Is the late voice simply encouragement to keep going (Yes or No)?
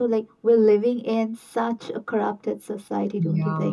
No